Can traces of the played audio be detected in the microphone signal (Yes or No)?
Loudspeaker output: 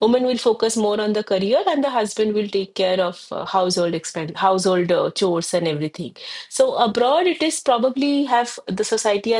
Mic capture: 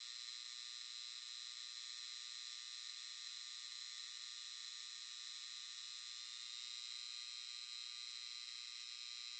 No